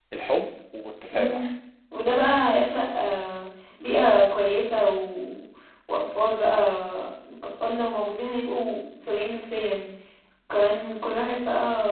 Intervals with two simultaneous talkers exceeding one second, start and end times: none

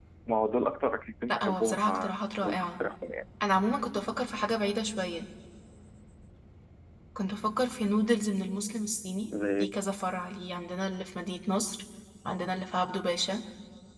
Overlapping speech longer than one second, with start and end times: 1.3-2.7

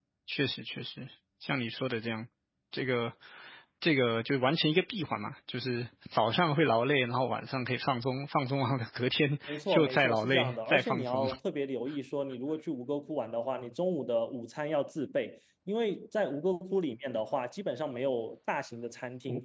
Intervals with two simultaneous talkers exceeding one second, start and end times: 9.7-11.3

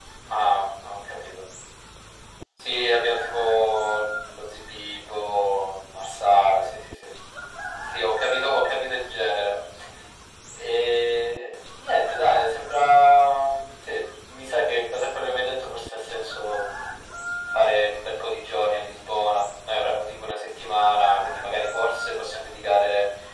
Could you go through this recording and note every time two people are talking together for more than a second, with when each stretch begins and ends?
none

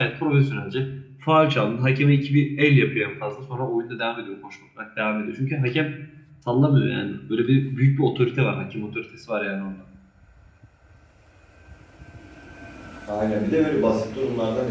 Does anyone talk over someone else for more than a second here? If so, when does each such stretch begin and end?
none

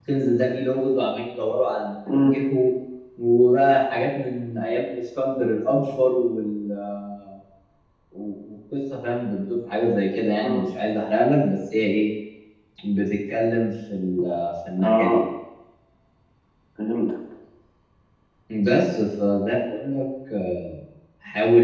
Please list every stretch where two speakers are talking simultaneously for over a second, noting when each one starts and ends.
none

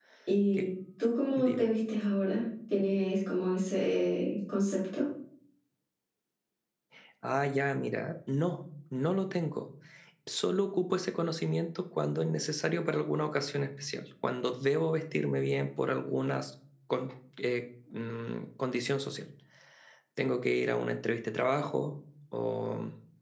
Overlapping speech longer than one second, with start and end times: none

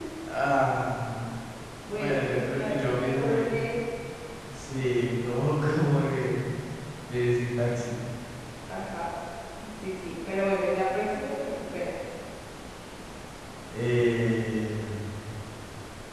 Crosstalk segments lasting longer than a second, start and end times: 1.9-3.5

